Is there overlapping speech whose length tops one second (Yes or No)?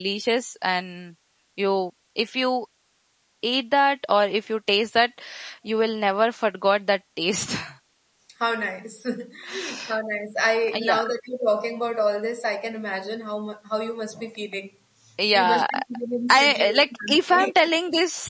Yes